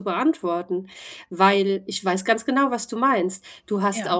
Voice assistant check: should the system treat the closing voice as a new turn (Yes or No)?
No